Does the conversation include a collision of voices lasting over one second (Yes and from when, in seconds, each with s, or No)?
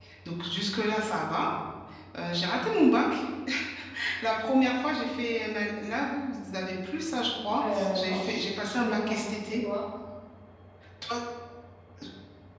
Yes, from 7.6 s